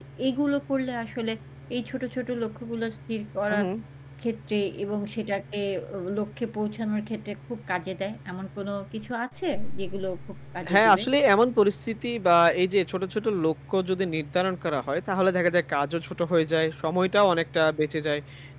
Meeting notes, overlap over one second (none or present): none